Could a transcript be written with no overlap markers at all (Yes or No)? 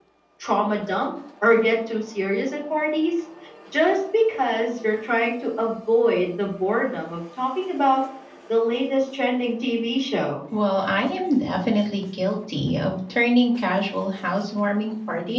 Yes